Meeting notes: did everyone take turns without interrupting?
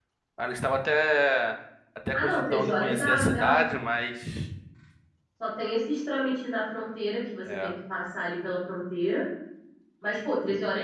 No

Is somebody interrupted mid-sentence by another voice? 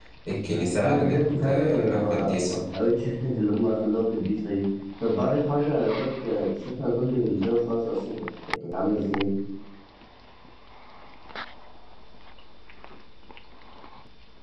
Yes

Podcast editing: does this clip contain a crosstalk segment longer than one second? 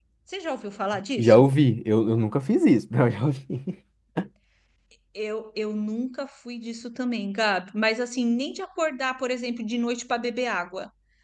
No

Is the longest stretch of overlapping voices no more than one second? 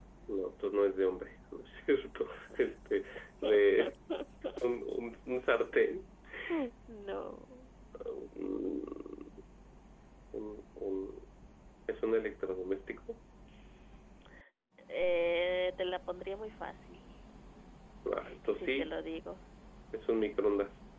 Yes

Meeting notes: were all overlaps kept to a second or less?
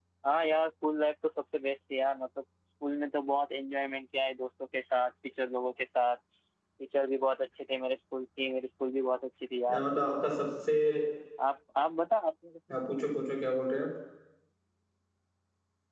Yes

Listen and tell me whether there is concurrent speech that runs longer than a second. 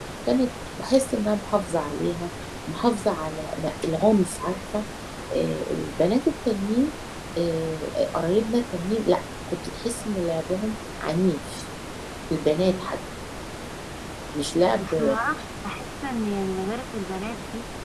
No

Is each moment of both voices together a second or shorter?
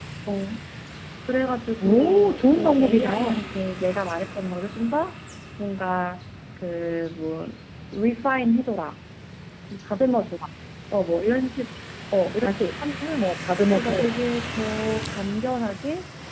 No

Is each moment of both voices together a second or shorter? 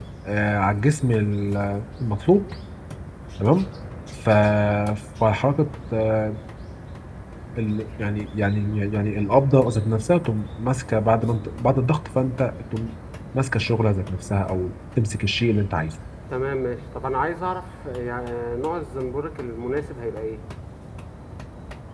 Yes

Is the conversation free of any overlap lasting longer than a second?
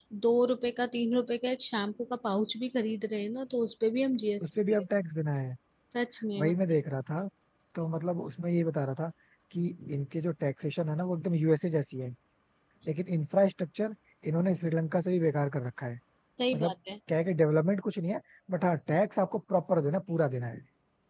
Yes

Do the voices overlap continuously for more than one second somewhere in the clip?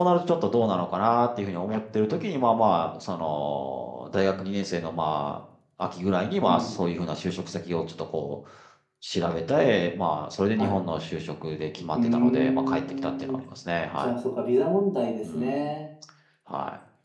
Yes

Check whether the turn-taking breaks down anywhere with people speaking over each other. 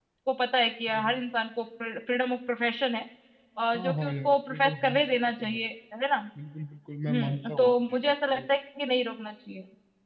Yes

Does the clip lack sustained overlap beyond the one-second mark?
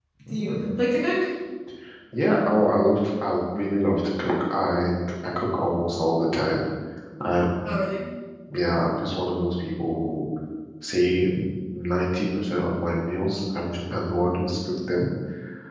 Yes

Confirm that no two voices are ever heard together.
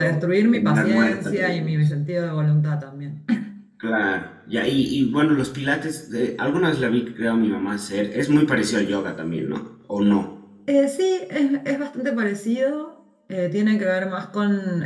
No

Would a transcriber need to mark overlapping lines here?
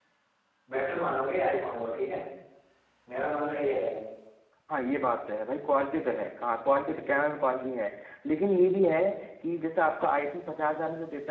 No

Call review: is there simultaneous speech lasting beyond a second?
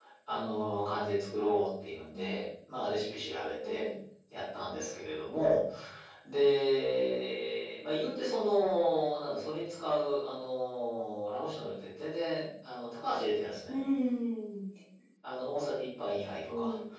No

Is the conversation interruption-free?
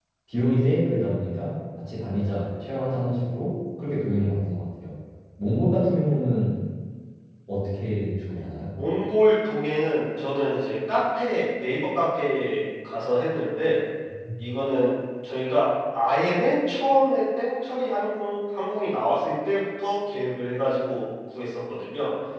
Yes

